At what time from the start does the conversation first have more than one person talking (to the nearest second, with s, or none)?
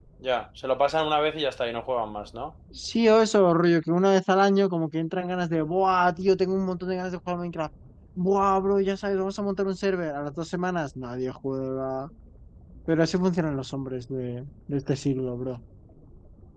none